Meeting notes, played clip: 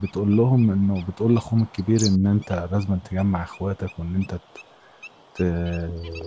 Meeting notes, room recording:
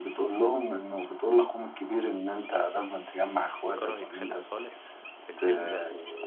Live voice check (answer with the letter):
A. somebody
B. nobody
A